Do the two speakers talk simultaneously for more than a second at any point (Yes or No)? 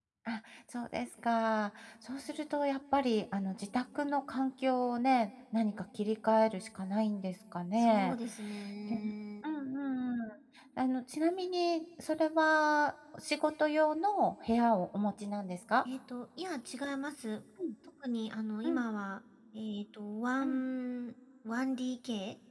No